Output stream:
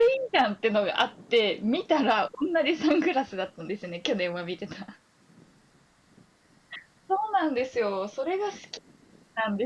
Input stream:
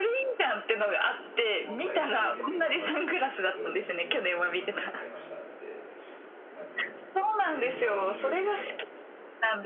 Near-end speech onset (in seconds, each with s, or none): 1.6 s